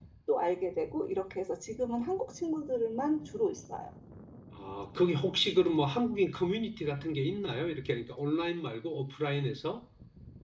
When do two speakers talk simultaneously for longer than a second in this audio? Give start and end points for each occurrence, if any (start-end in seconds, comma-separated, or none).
none